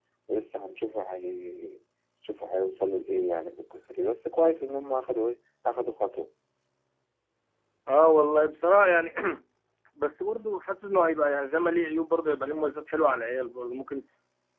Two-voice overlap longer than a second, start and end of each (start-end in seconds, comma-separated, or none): none